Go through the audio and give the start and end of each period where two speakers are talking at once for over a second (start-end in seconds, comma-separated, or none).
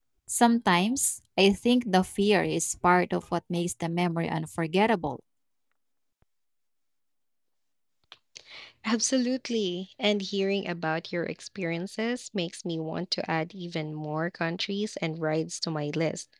none